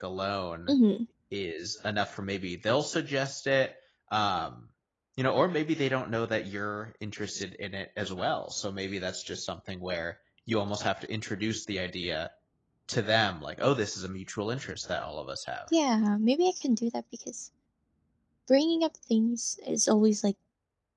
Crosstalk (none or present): none